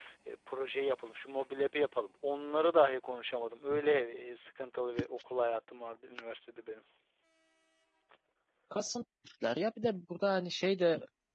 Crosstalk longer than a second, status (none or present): none